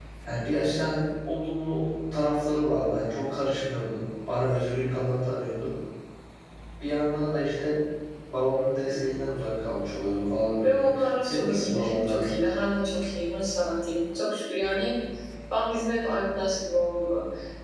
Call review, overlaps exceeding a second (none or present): present